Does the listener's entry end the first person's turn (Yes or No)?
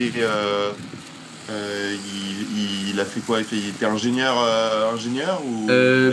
Yes